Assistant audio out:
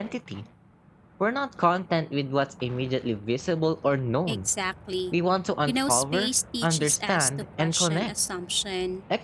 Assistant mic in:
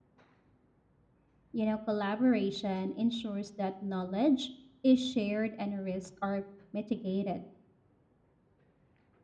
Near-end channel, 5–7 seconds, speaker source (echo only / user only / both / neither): user only